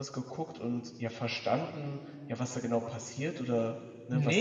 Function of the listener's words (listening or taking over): taking over